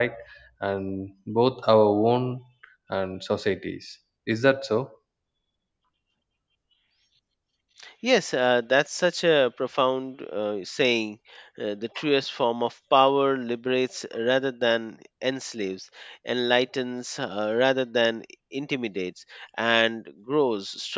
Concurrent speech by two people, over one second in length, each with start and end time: none

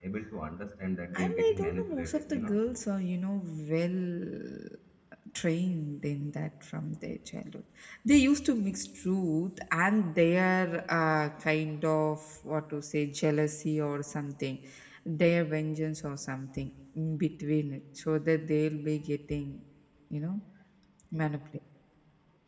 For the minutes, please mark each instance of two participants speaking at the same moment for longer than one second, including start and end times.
1.1-2.5

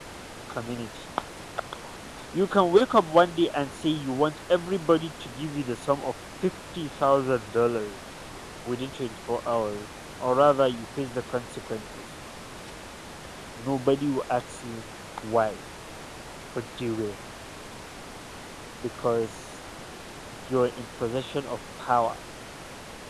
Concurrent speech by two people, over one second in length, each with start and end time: none

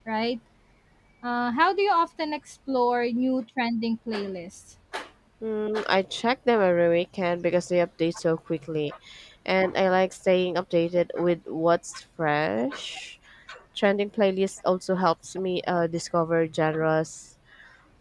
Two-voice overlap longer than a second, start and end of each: none

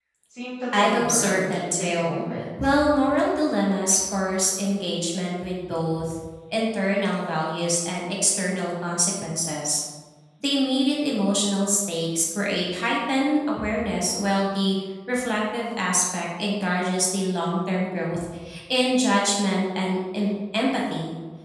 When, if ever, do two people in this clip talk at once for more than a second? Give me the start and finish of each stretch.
0.7-2.2

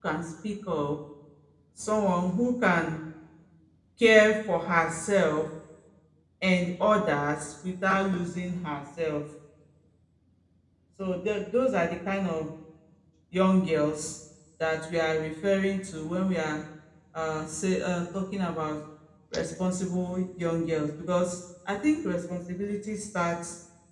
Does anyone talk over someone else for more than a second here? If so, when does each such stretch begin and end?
none

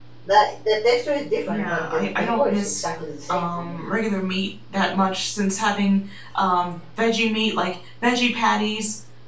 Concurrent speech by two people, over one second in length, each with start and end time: 1.4-2.8

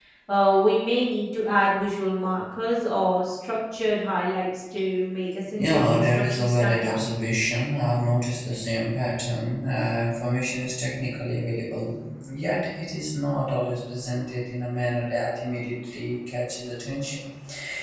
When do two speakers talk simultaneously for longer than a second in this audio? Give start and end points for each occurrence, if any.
5.6-7.0

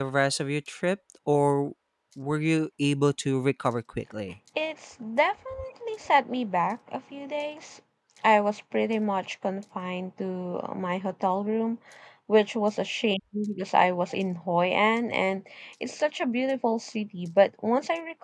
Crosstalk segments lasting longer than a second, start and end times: none

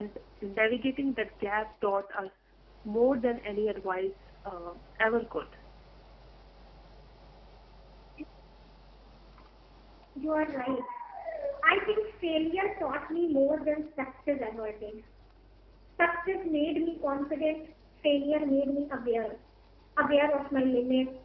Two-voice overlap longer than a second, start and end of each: none

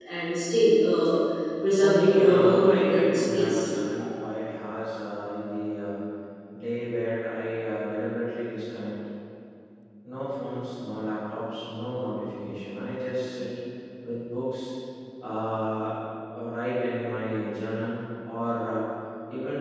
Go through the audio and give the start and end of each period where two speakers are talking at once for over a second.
1.7-3.7

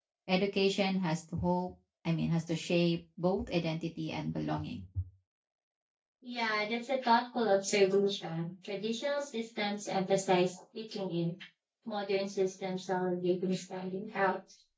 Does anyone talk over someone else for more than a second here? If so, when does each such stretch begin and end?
none

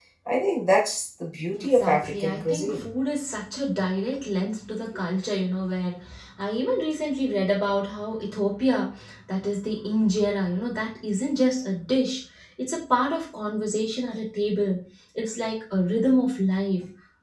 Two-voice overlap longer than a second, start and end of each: 1.6-2.9

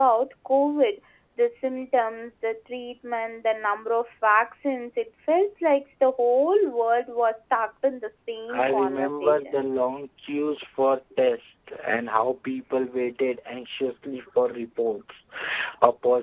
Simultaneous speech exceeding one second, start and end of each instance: 8.5-9.8

